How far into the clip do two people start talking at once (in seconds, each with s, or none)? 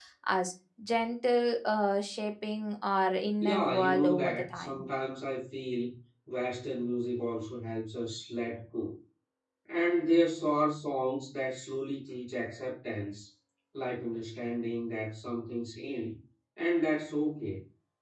3.4 s